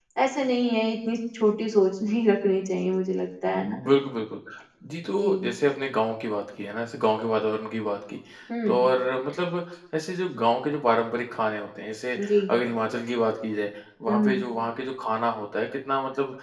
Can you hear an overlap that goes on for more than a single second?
No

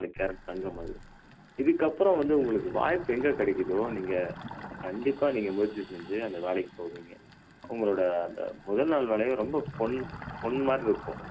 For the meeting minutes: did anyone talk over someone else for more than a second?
No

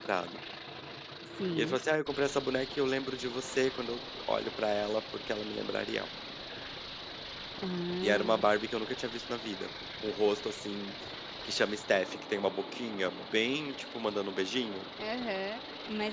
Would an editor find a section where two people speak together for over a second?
No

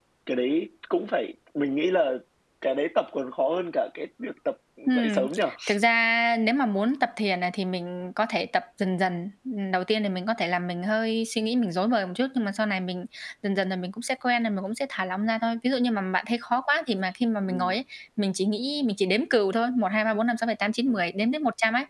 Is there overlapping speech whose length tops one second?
No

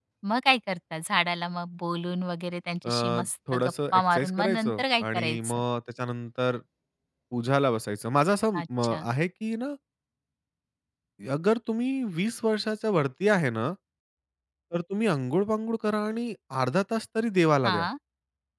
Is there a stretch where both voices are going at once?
Yes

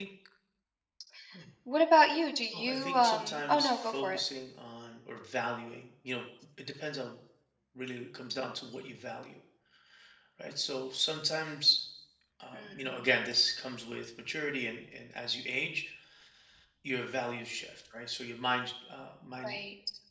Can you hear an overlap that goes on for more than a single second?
Yes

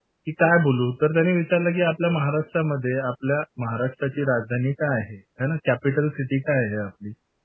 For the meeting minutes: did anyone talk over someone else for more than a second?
No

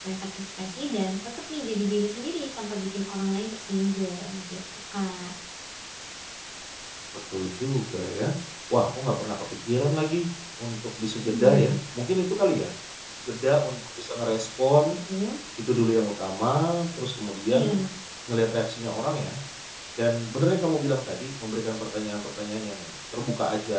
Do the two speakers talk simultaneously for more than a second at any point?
No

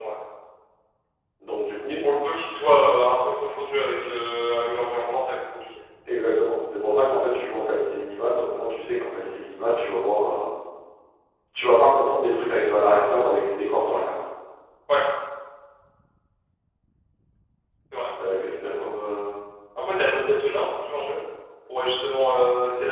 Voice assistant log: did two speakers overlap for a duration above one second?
No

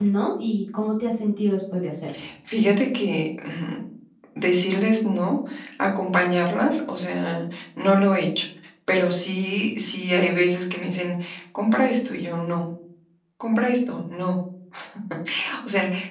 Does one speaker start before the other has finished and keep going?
No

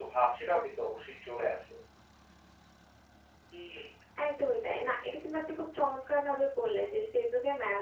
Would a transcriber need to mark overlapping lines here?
No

